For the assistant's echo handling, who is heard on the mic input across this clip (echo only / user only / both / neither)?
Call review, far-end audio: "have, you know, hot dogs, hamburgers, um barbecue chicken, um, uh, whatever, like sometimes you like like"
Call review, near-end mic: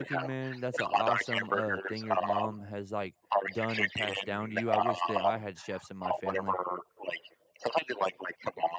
both